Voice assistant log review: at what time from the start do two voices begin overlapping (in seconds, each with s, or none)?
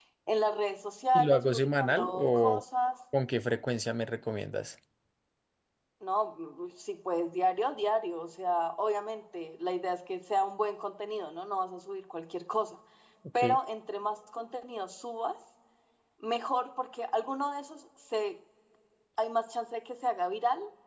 1.1 s